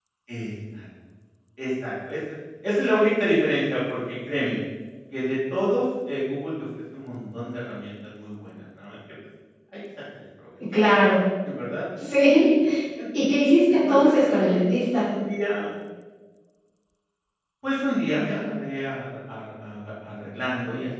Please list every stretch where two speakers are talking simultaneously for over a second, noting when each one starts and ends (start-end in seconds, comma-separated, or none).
13.7-15.1